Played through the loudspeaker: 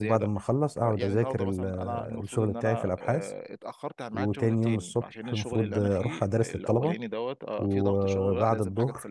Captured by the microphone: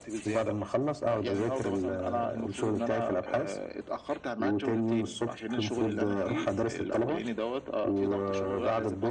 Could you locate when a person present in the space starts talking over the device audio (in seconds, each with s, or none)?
none